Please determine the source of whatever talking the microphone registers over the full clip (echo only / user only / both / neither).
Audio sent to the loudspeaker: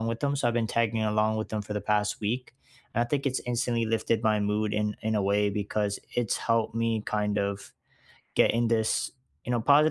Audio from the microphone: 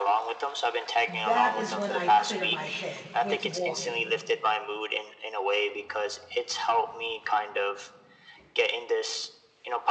both